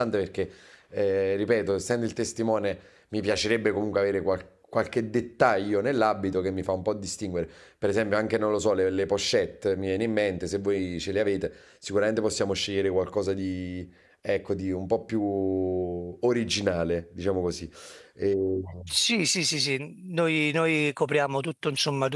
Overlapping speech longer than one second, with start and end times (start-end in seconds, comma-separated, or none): none